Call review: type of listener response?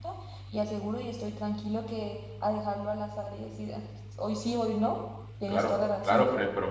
taking over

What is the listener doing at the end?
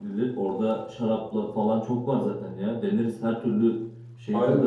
taking over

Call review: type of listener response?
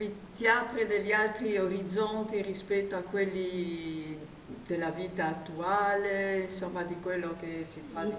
taking over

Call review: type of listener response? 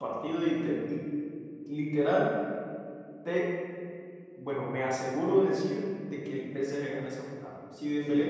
listening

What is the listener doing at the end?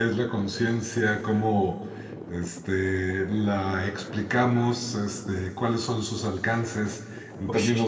listening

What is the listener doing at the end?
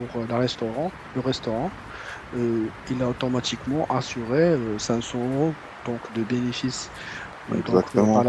listening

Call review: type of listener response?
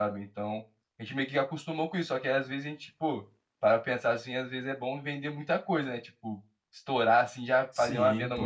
listening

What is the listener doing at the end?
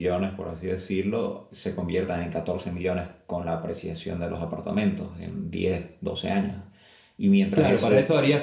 taking over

